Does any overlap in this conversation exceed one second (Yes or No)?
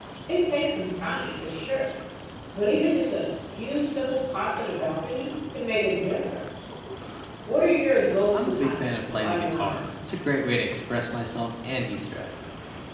Yes